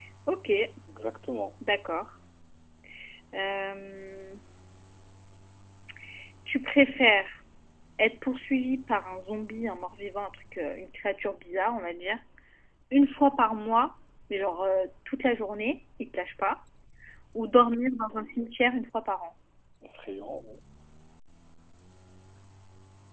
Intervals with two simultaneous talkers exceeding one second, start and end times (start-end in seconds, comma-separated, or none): none